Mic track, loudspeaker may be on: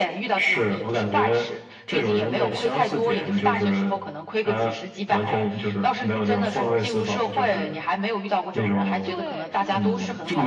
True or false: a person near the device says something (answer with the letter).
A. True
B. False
A